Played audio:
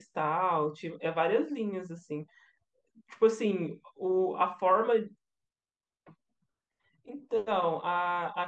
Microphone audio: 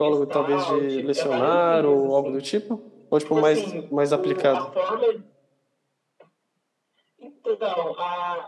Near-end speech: present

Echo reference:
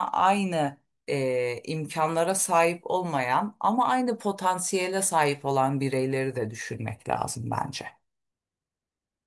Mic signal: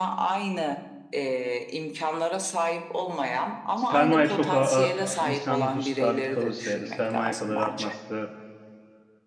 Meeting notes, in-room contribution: present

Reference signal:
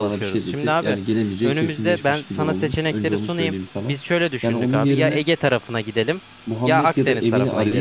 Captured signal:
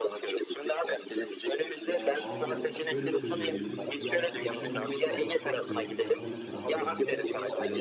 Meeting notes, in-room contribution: present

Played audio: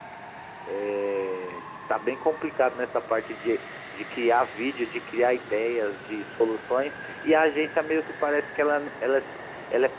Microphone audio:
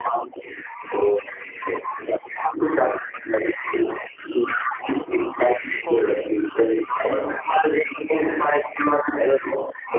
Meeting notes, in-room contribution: present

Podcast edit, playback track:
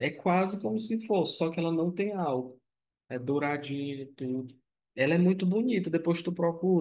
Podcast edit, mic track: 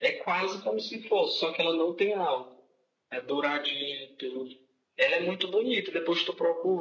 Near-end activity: none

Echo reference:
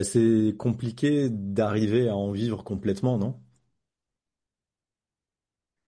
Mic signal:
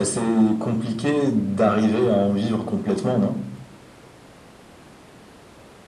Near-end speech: none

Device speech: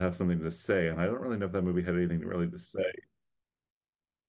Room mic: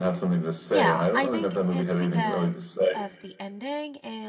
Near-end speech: present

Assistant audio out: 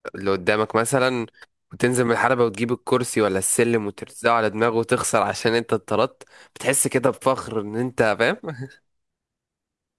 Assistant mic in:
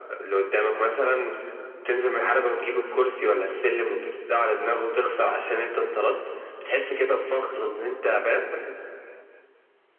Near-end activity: none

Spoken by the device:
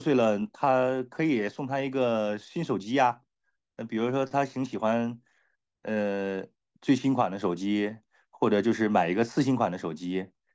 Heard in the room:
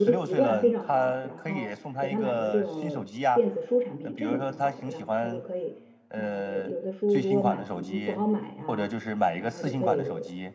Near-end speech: present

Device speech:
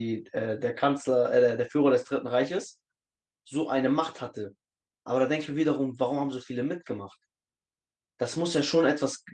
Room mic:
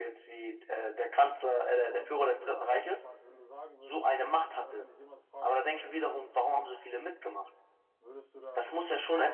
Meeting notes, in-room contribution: present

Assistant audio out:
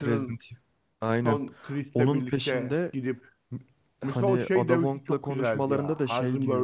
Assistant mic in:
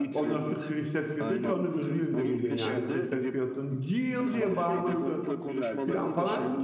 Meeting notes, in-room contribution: present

